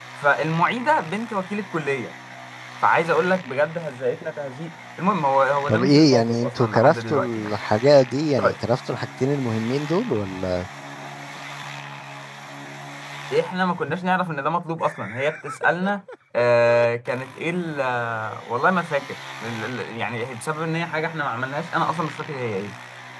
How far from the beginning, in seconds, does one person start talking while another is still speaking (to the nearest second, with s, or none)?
6 s